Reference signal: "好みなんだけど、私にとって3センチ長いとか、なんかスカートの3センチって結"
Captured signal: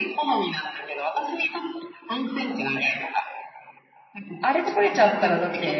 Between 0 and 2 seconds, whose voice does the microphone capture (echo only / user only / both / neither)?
echo only